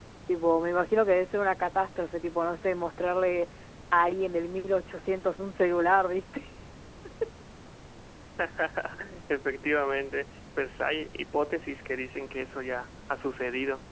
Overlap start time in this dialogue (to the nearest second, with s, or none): none